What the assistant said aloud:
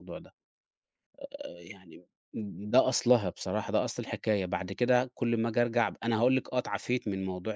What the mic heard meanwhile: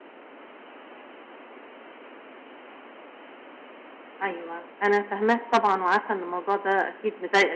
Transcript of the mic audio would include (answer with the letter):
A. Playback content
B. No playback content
B